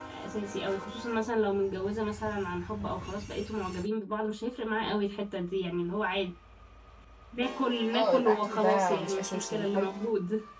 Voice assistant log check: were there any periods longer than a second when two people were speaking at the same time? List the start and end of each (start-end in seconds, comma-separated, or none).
7.9-9.9